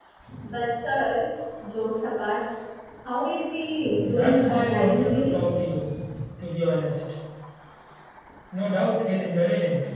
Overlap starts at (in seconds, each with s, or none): 4.1 s